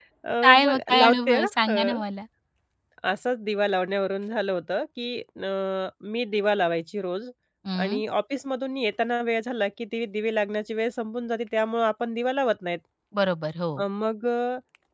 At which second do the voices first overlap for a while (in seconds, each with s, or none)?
0.7 s